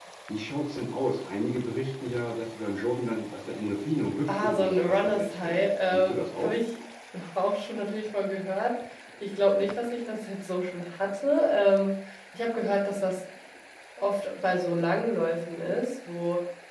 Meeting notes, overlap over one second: present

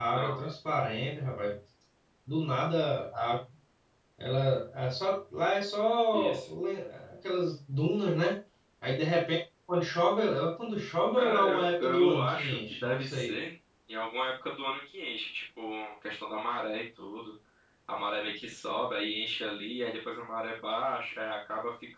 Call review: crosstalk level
present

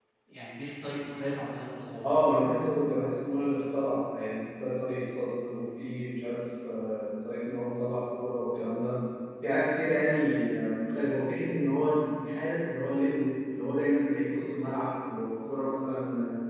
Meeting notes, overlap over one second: none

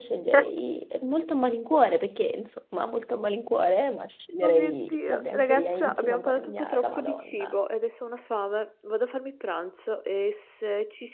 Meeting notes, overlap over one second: present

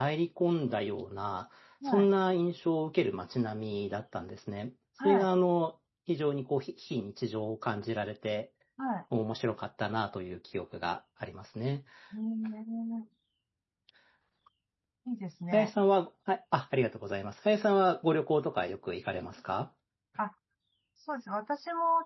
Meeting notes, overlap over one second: none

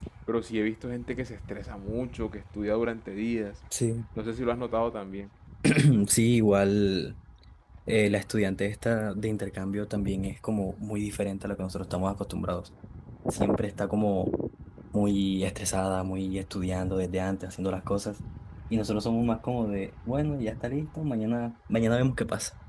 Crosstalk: none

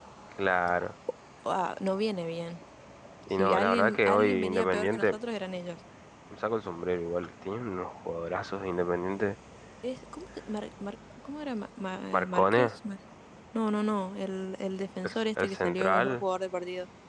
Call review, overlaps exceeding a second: present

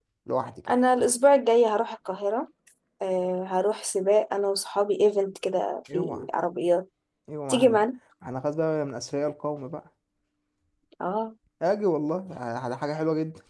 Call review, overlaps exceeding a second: none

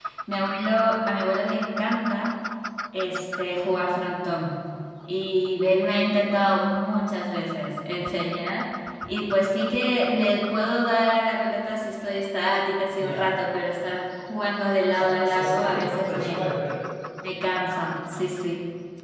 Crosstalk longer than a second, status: present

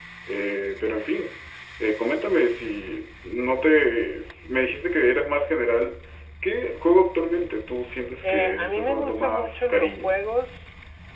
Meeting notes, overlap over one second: present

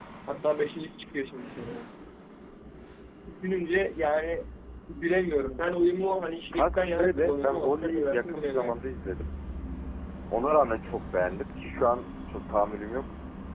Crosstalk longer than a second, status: present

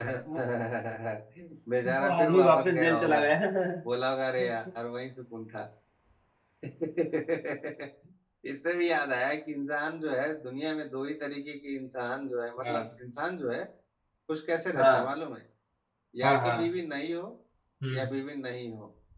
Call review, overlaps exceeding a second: present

